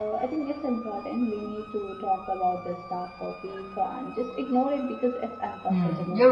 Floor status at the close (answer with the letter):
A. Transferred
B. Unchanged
A